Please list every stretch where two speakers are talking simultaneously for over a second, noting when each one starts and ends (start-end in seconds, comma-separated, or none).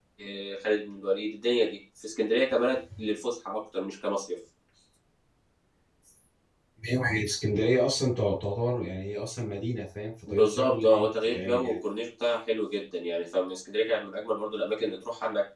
10.3-11.7